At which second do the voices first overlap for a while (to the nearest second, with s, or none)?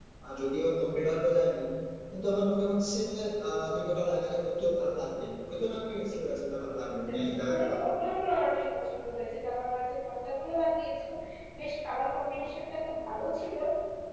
7 s